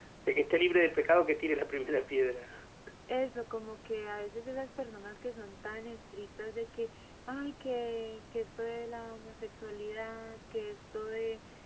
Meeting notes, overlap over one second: none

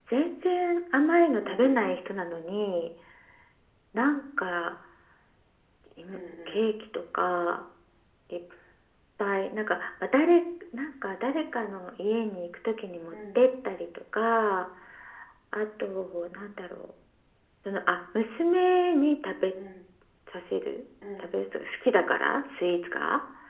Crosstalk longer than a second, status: none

